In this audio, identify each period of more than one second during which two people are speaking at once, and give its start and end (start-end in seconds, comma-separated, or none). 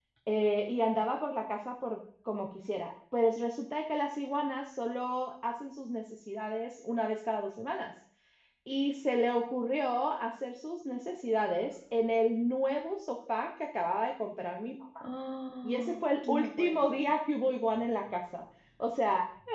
15.6-17.1